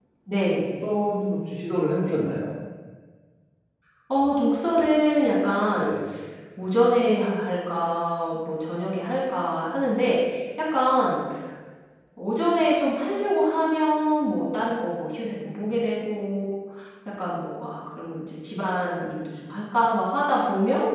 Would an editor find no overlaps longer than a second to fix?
Yes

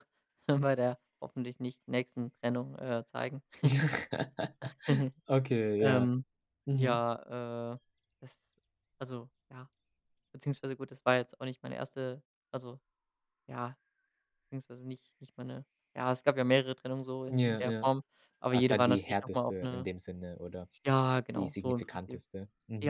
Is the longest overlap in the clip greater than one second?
Yes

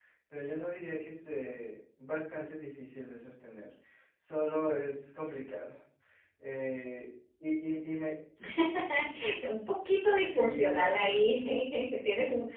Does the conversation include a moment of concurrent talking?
Yes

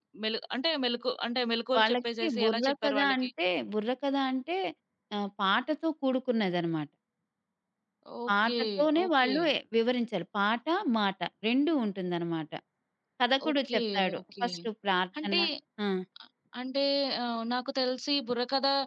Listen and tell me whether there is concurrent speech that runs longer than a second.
Yes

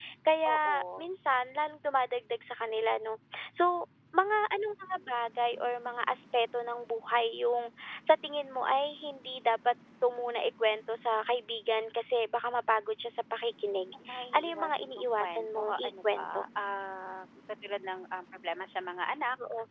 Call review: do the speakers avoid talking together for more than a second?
No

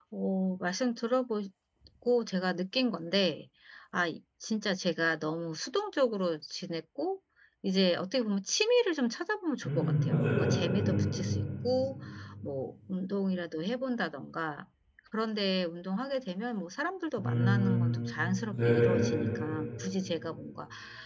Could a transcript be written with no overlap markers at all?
No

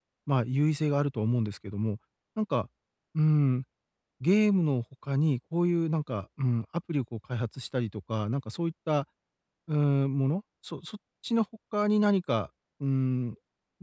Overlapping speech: No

